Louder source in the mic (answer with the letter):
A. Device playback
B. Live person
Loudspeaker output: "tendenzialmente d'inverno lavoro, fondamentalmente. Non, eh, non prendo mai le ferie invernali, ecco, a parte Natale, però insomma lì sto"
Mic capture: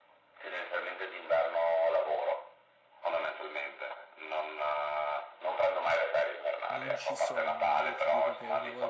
A